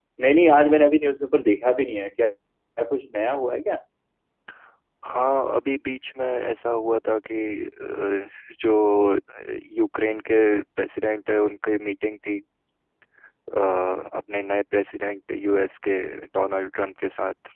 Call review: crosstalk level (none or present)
none